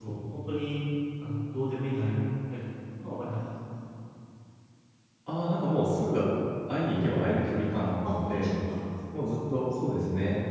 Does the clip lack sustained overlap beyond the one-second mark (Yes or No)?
Yes